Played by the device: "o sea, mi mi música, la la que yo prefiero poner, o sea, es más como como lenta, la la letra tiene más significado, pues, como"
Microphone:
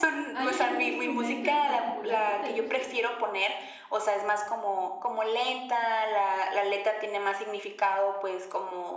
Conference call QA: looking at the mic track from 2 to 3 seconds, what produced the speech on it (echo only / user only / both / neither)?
both